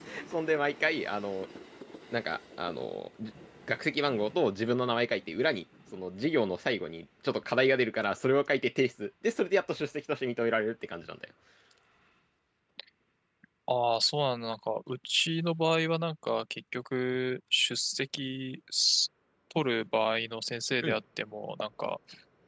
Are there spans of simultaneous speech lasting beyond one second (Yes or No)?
No